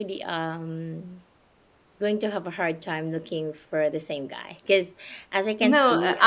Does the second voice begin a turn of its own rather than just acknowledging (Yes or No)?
Yes